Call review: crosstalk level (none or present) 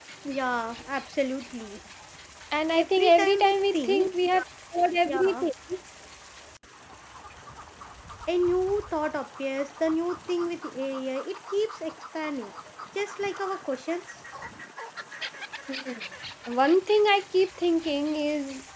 present